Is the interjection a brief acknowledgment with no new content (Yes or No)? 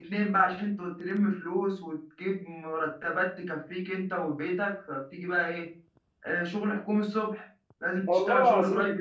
Yes